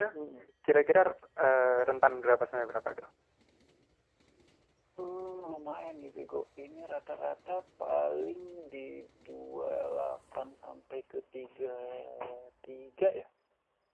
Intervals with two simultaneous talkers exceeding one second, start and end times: none

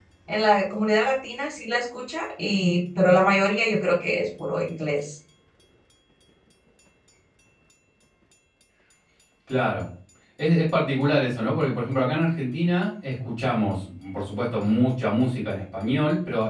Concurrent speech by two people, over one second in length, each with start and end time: none

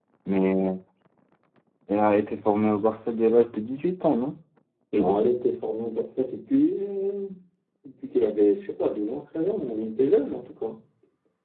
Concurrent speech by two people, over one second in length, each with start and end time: none

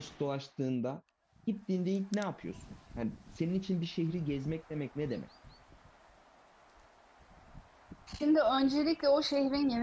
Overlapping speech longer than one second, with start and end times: none

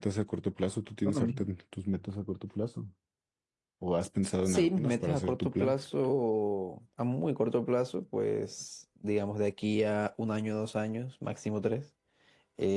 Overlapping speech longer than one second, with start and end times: 4.5-5.8

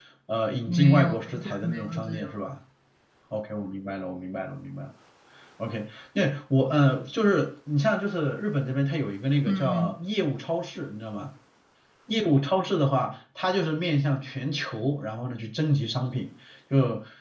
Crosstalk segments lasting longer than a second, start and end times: 0.7-2.3

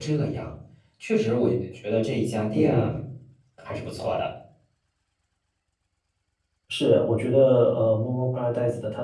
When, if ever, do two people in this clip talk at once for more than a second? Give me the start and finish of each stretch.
none

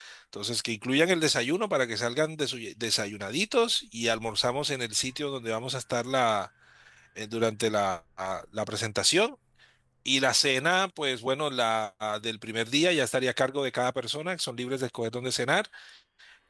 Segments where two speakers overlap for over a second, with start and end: none

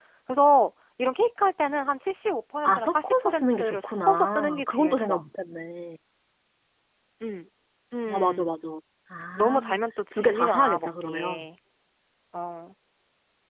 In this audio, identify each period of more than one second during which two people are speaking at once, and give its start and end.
2.6-5.2, 10.1-11.4

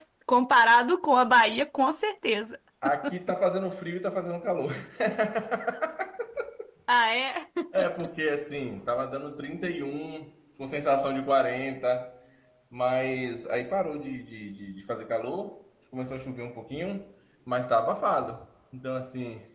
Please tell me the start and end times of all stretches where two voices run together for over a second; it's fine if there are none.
none

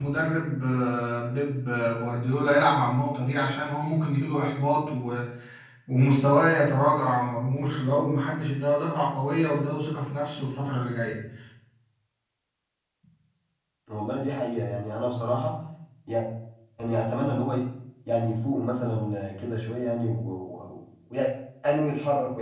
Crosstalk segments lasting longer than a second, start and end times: none

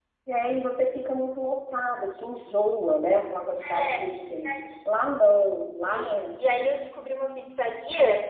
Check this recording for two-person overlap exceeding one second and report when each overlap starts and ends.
none

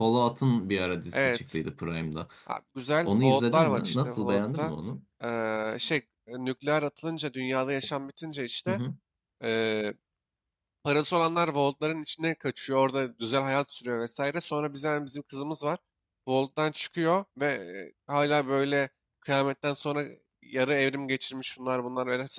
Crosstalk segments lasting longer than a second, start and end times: 3.0-4.7

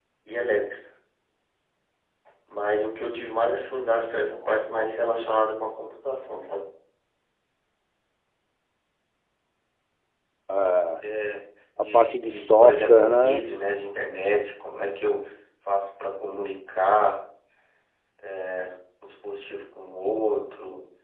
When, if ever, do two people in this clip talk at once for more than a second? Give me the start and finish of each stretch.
11.9-13.5

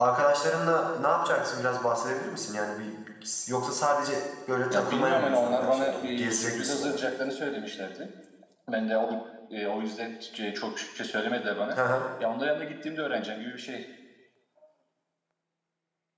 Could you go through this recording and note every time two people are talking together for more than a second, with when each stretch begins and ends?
4.7-7.0

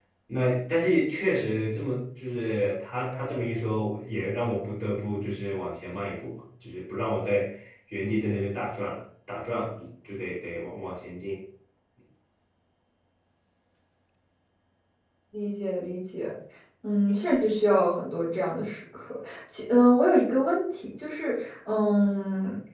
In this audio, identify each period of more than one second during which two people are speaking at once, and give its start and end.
none

